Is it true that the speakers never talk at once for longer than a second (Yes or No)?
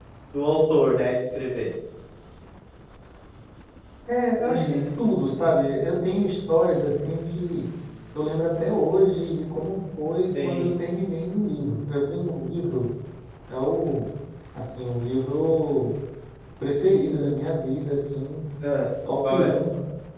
Yes